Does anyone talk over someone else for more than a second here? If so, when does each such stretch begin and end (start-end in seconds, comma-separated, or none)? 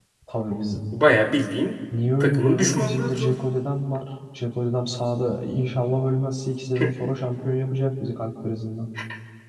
2.2-3.4